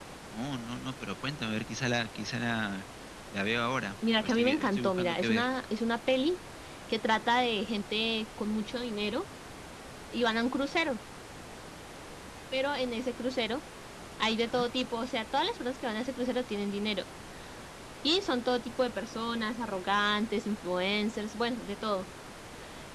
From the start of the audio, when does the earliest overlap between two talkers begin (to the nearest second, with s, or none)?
4 s